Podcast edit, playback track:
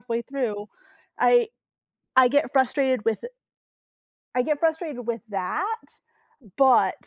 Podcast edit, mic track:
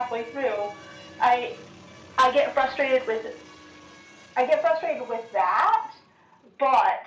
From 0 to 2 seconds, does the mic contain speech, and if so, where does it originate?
echo only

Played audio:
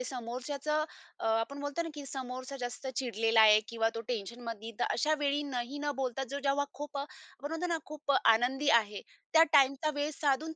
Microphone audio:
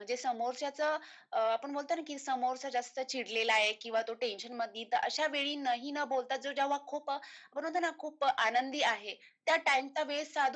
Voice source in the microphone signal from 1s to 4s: echo only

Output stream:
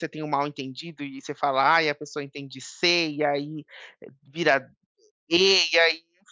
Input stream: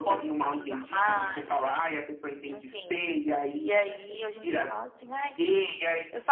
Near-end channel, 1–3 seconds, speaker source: both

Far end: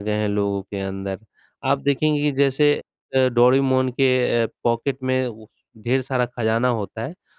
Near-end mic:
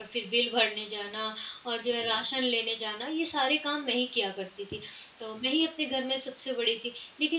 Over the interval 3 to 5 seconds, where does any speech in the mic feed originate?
user only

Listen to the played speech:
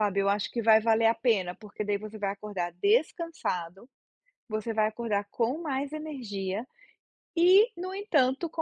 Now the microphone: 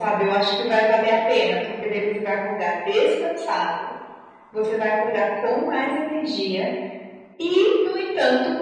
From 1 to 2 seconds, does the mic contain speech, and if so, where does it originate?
echo only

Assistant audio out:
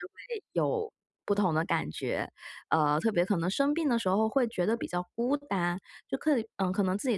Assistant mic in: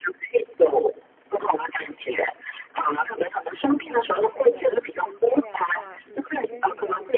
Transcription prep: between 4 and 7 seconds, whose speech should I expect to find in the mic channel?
both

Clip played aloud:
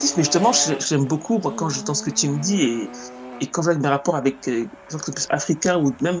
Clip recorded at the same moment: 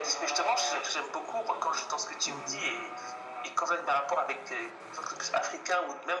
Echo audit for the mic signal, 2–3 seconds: both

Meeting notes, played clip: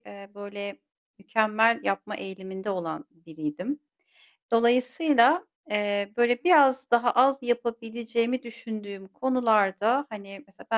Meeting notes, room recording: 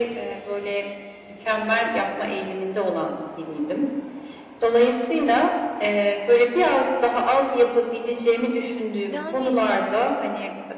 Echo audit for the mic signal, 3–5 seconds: echo only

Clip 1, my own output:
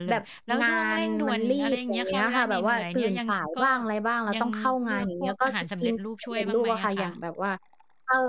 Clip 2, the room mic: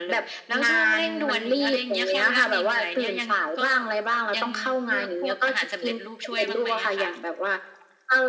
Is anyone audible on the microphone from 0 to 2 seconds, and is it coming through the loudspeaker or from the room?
echo only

